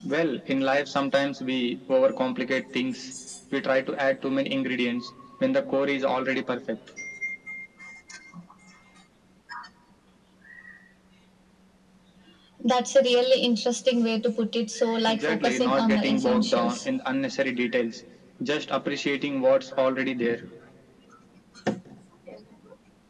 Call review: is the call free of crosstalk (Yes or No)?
No